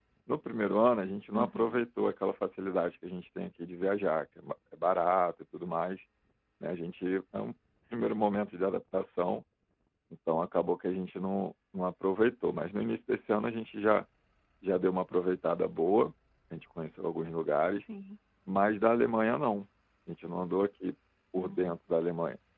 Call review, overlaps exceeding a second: none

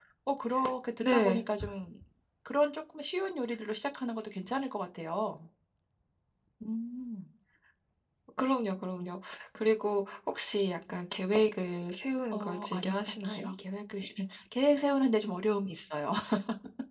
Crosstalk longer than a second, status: present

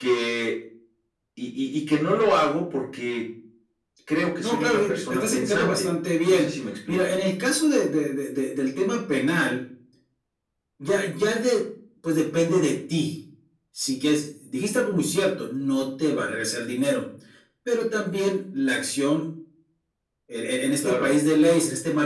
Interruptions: present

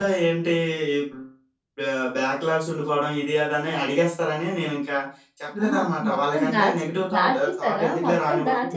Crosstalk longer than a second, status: present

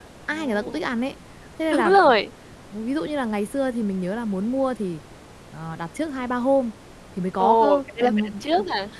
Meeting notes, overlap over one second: present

